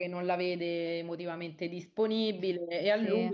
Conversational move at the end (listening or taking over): listening